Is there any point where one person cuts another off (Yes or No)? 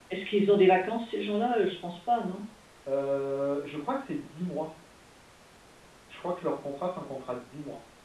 No